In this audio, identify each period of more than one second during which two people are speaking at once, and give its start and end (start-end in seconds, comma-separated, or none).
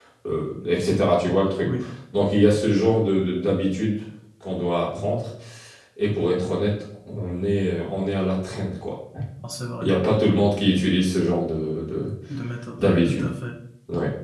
none